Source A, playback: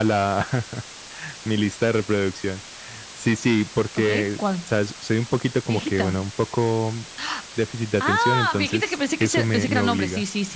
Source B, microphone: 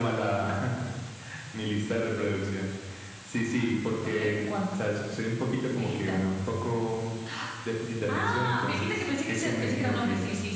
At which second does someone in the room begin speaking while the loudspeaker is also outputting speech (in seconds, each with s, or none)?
none